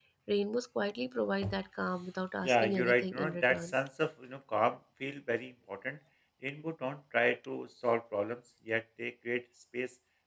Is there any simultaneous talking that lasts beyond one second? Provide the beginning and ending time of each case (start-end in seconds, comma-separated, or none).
2.4-3.7